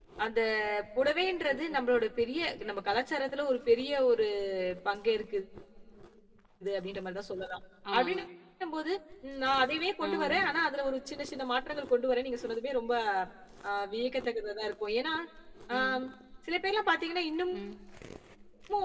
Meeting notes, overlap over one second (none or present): none